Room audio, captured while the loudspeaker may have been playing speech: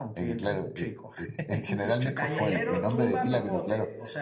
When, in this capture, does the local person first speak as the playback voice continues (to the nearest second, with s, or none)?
2 s